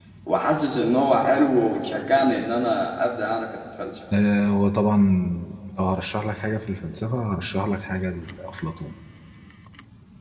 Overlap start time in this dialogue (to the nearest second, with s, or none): none